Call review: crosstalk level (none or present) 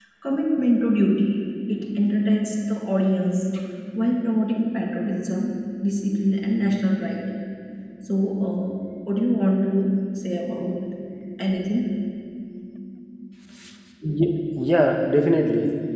none